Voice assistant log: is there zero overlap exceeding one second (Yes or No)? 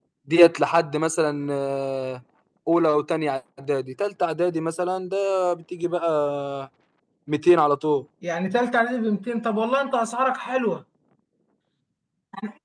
Yes